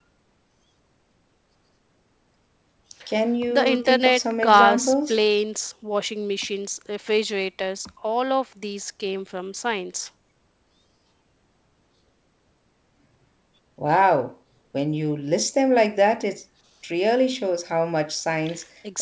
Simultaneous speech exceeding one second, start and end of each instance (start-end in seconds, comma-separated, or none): 3.5-5.2